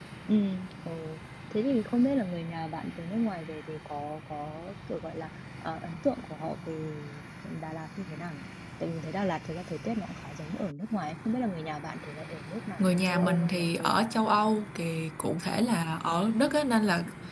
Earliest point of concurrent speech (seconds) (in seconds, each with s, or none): 12.8 s